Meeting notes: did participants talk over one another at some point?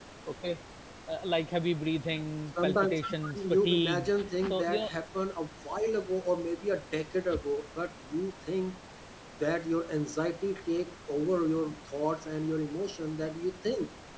Yes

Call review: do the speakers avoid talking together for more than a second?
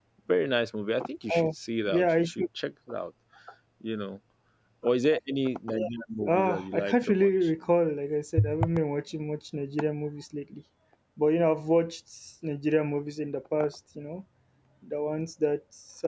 No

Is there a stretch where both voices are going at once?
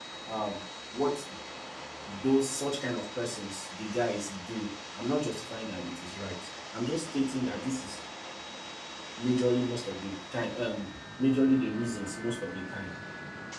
No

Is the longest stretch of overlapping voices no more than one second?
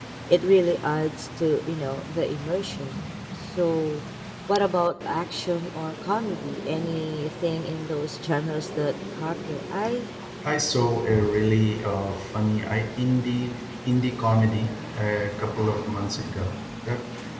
Yes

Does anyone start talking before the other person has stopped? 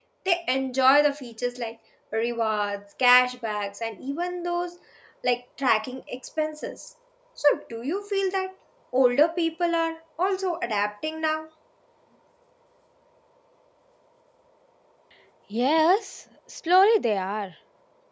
No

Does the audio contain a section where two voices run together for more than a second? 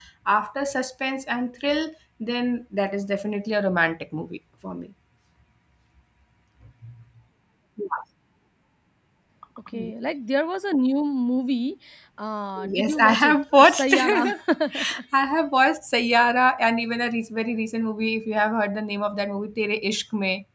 Yes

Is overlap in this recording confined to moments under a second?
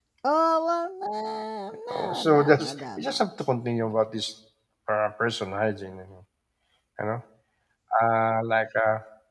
No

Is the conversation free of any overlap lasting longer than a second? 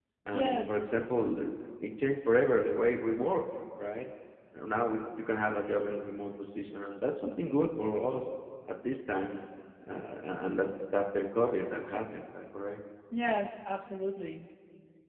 Yes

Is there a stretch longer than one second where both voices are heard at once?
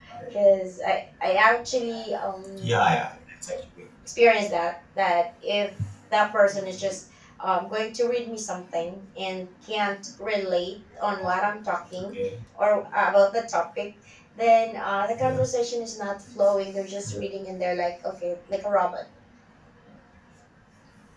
No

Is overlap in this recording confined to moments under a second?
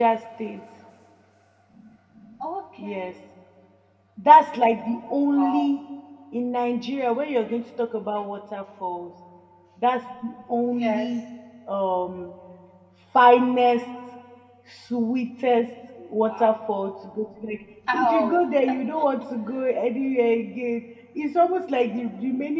Yes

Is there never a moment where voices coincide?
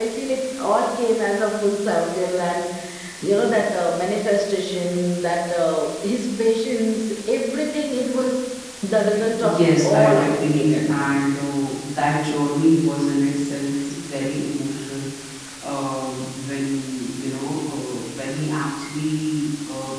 No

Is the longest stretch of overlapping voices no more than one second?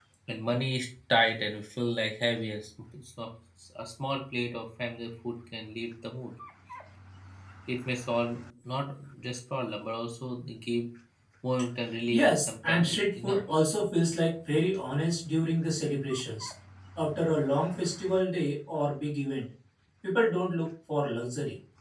No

